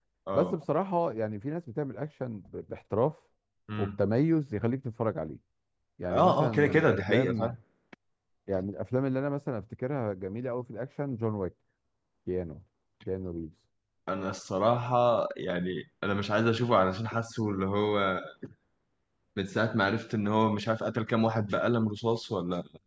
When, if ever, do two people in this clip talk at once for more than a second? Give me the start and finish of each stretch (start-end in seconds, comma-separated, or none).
6.1-7.5